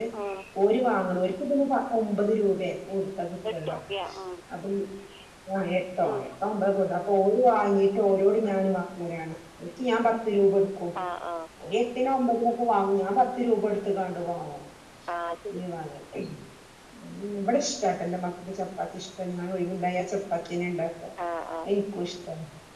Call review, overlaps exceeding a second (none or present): none